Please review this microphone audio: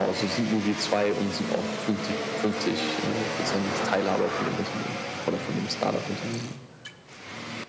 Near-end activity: none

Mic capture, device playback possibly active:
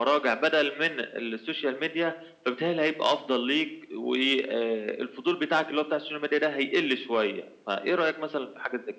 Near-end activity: none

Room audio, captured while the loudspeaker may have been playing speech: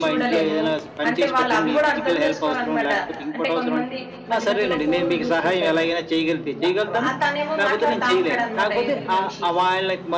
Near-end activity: present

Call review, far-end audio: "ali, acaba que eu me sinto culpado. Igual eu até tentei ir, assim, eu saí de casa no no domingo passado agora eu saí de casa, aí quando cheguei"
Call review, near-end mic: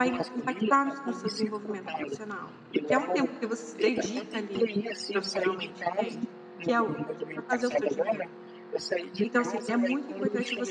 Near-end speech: present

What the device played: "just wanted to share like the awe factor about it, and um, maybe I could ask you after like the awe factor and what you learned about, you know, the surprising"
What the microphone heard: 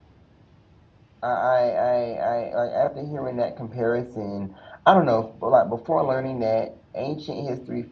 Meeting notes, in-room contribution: present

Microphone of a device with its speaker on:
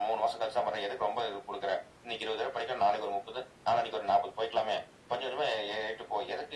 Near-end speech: none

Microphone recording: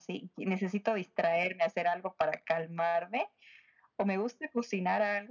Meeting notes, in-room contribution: none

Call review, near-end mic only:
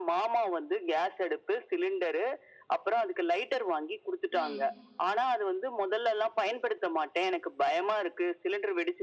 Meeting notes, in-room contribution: present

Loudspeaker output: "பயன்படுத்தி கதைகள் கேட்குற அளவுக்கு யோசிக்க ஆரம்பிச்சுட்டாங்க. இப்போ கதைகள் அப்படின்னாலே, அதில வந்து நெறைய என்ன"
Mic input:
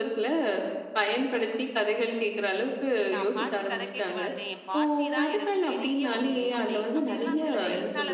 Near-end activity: present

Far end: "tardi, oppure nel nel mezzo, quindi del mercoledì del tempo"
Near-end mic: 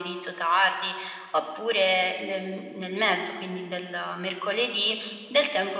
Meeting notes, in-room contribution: none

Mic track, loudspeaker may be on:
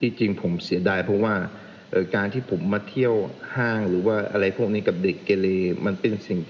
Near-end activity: none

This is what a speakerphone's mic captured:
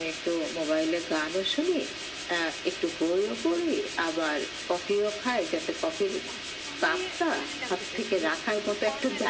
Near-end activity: present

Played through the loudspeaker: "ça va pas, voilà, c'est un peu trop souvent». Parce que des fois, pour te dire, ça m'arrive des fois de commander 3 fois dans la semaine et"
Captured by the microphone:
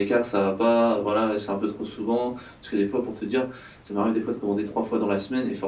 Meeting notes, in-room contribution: none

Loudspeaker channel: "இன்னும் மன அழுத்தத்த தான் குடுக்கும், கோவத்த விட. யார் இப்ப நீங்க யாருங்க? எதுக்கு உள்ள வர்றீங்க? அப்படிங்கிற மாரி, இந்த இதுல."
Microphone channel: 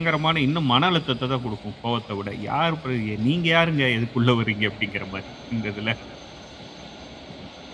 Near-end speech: none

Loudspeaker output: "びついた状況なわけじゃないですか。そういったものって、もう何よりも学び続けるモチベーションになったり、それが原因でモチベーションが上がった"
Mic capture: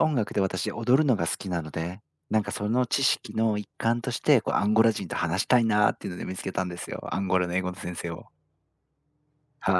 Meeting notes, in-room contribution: present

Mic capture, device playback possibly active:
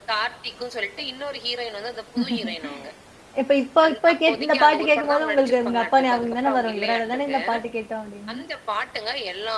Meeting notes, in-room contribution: present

